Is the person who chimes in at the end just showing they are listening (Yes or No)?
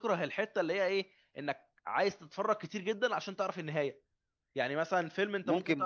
No